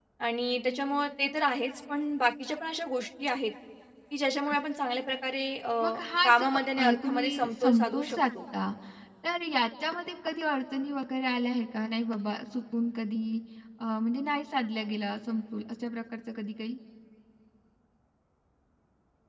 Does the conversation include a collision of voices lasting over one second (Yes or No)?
Yes